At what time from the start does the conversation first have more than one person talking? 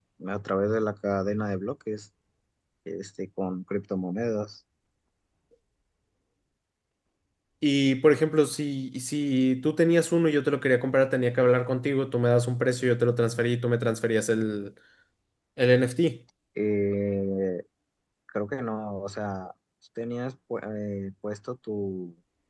none

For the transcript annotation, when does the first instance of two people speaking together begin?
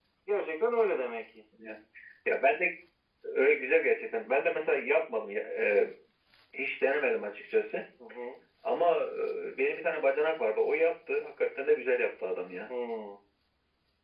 none

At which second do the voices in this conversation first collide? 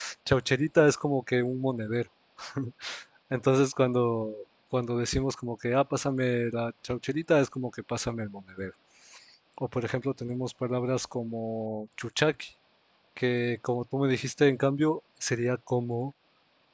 none

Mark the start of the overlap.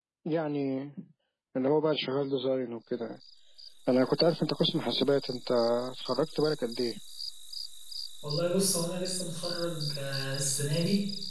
none

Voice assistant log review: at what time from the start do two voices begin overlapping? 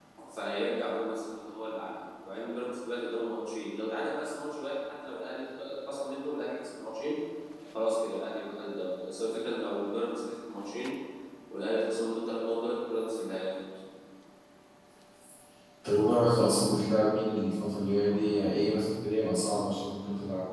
none

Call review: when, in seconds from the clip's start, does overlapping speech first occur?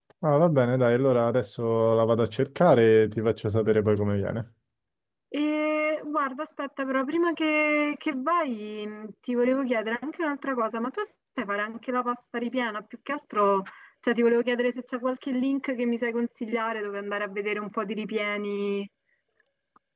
none

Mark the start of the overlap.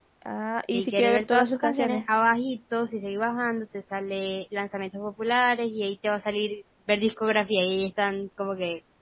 0.7 s

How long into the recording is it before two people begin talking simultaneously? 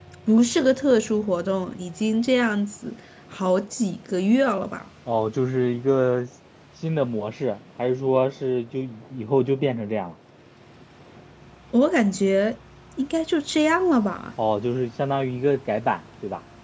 none

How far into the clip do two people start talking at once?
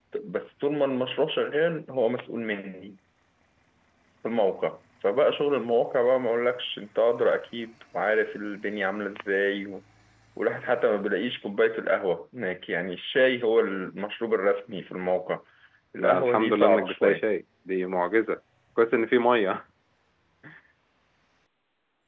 16.0 s

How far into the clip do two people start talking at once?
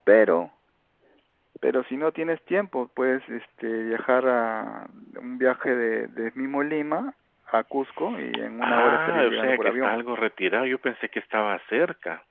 8.6 s

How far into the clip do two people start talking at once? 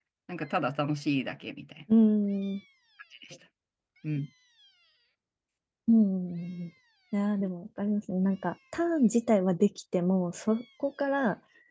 none

